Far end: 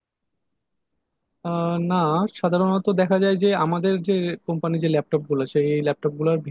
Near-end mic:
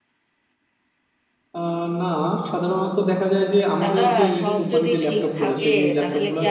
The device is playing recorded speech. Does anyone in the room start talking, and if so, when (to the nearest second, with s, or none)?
4 s